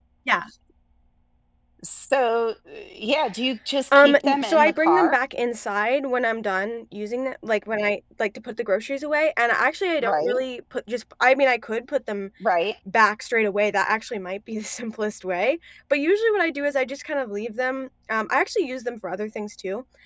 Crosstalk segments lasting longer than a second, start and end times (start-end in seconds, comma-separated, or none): 4.0-5.2